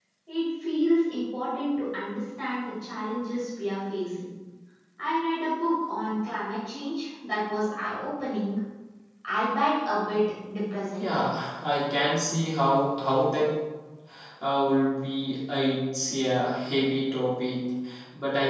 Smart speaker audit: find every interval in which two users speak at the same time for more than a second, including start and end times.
none

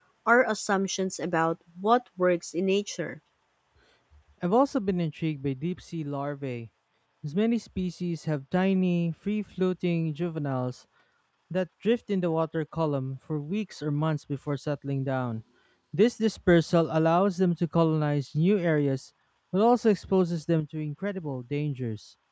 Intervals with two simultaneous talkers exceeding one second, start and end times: none

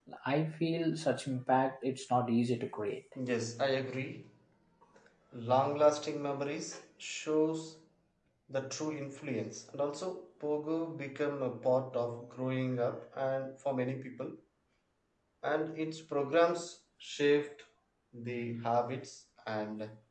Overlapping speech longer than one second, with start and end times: none

